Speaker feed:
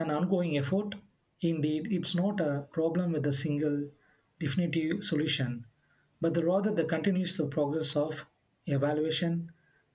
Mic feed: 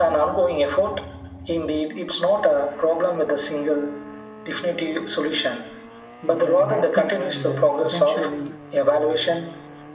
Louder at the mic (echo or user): echo